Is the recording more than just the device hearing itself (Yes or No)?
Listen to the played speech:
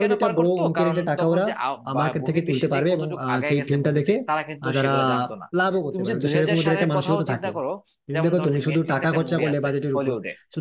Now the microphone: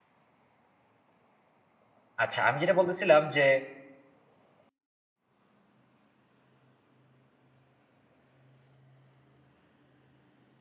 Yes